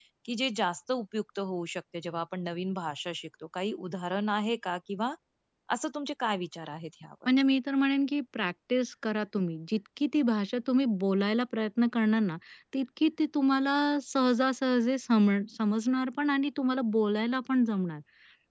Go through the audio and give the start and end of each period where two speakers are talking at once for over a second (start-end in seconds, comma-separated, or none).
none